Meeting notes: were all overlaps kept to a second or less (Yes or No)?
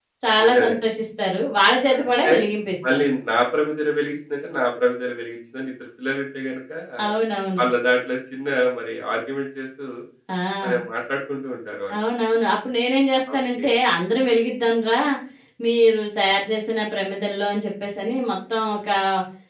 Yes